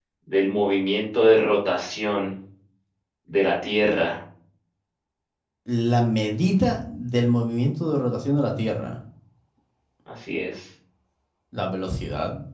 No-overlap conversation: Yes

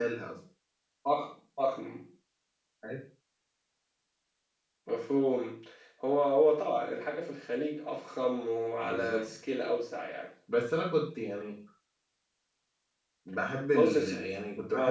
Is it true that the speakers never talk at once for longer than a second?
Yes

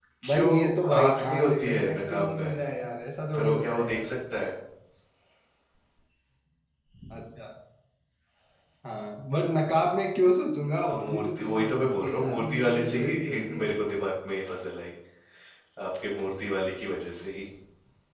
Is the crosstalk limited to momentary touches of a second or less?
No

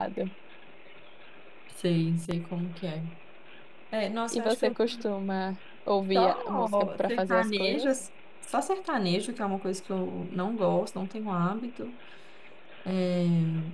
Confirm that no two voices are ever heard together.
No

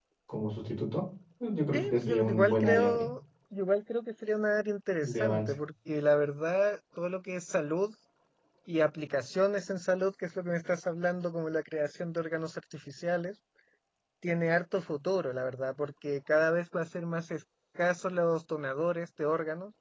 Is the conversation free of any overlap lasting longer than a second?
No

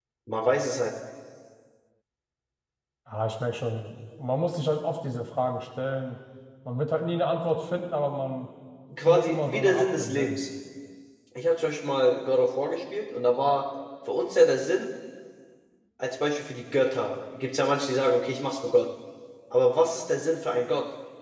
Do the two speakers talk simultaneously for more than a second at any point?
Yes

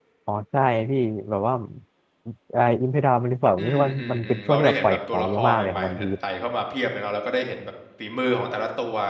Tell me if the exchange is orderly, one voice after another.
No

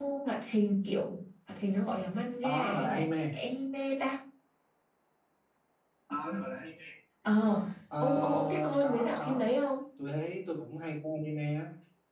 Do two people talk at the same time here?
Yes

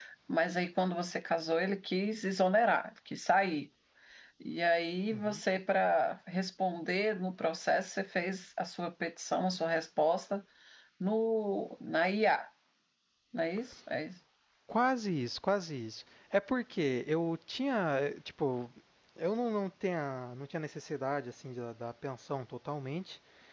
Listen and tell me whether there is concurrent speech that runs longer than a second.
No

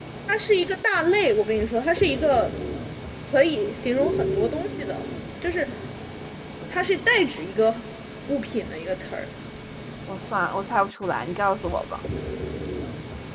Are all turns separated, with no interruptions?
Yes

